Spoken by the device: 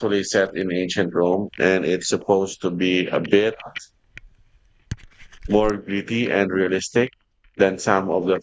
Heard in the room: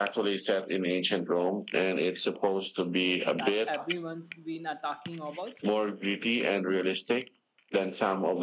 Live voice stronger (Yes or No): No